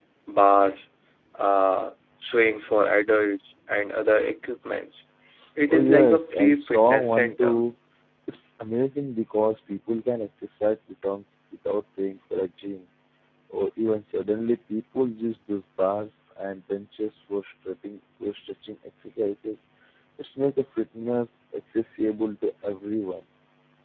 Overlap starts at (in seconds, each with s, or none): 5.7 s